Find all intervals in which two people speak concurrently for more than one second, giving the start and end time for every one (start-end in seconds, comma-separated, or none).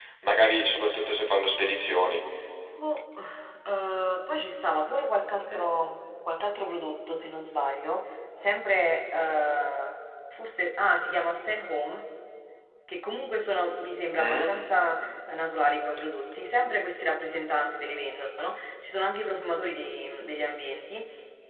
none